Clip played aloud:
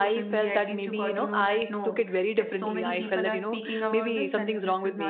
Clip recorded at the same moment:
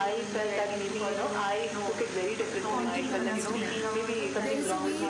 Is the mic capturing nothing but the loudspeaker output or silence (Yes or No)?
No